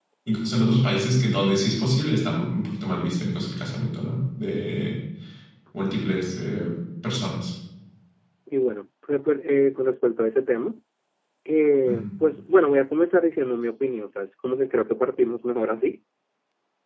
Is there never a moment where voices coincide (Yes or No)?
Yes